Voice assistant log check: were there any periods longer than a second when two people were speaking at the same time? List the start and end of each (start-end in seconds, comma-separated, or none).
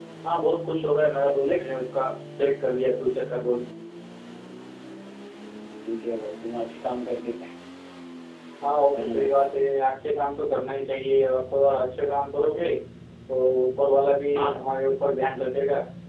none